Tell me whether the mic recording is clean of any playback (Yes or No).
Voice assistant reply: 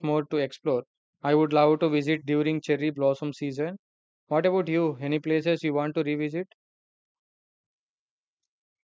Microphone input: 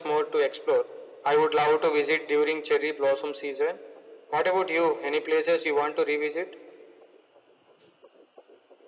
No